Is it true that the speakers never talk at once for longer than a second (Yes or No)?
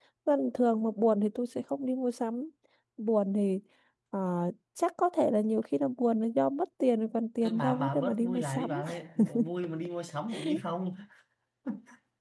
No